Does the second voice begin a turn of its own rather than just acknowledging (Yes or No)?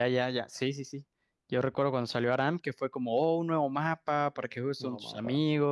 No